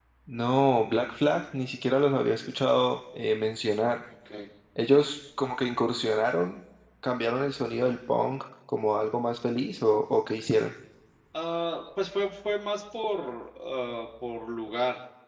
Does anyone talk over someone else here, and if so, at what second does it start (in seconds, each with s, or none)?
none